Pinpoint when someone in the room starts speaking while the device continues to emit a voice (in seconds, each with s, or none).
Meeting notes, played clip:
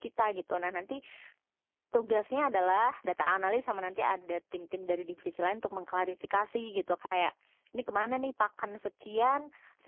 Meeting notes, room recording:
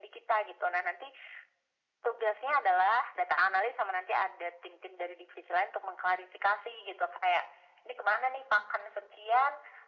none